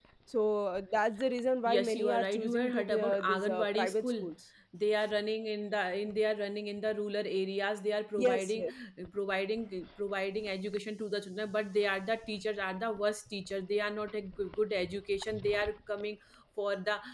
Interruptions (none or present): present